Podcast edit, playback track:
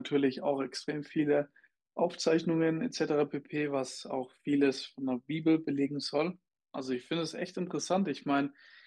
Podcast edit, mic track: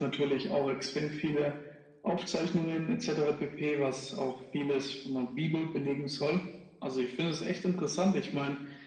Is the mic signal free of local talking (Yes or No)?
Yes